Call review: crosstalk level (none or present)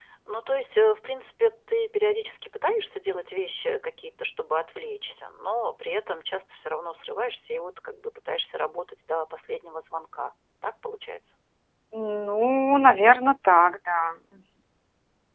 none